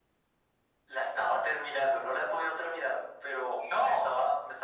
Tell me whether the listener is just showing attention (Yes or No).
Yes